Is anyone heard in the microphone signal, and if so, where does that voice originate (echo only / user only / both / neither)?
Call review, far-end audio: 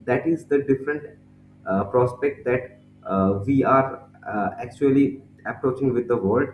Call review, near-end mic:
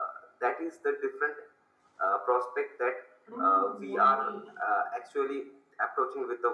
both